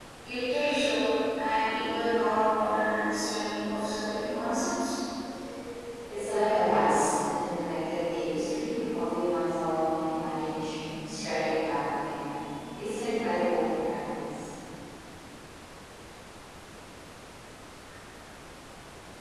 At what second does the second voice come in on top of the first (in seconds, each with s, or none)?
none